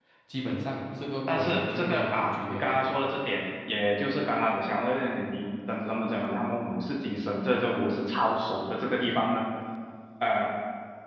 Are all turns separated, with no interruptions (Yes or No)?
No